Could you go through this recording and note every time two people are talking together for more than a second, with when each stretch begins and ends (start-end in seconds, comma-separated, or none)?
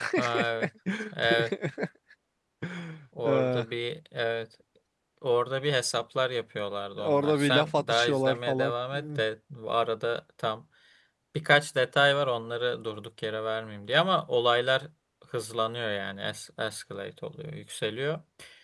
7.0-9.0